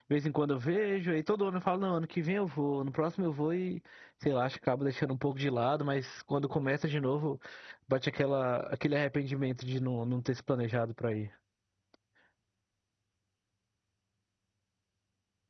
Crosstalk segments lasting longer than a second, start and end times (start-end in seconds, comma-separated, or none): none